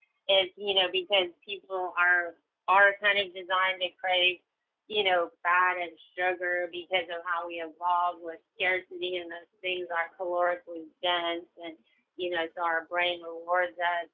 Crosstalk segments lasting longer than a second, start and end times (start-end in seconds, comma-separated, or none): none